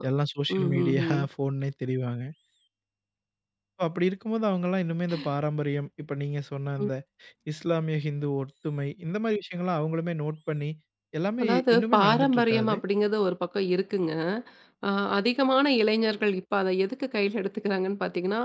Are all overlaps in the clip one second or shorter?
No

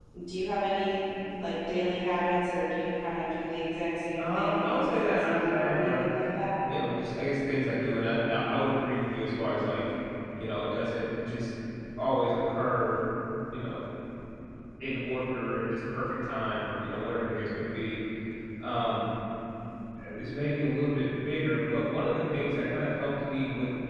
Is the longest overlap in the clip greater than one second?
Yes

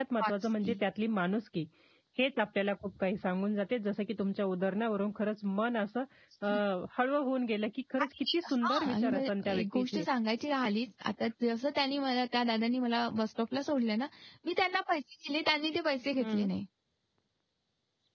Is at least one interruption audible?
Yes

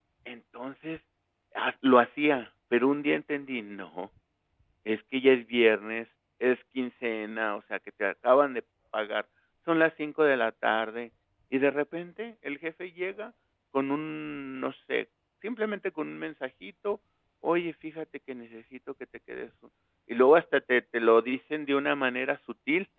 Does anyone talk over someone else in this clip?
No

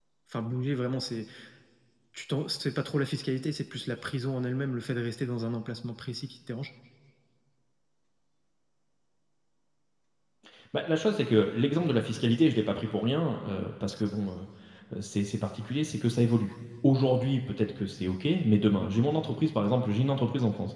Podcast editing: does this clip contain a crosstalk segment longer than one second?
No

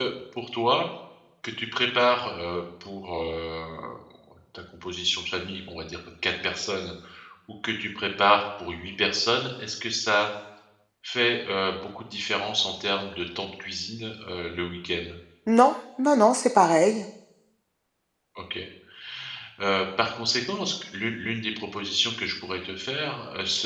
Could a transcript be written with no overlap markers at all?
Yes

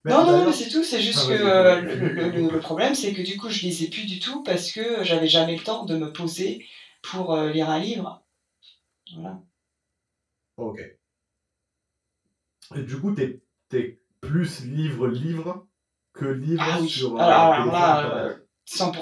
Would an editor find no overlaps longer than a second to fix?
No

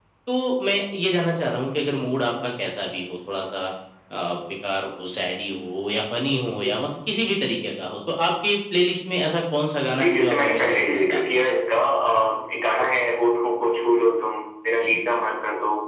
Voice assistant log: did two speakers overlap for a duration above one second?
Yes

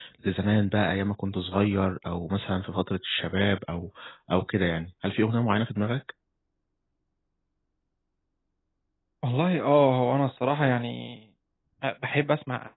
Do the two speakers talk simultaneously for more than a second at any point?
No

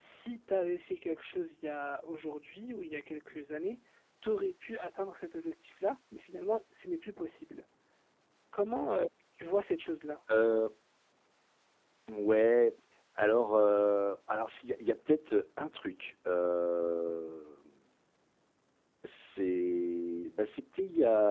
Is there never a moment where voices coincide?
Yes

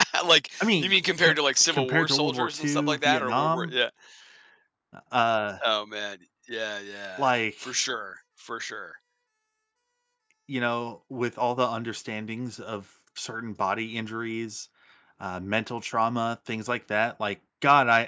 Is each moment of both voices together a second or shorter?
No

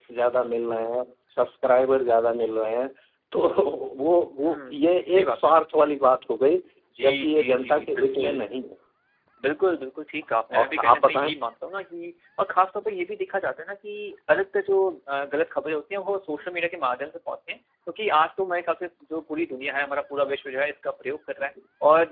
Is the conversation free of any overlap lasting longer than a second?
No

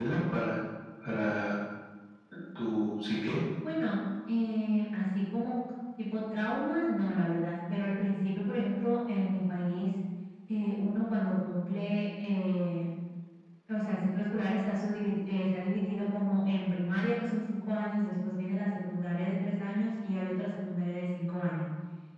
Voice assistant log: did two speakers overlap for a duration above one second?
No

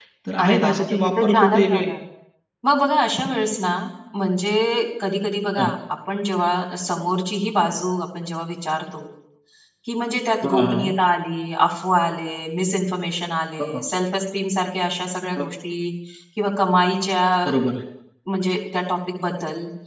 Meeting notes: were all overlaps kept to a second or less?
No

